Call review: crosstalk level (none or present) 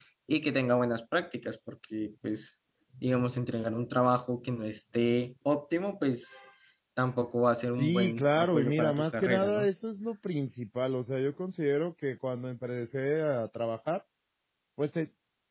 present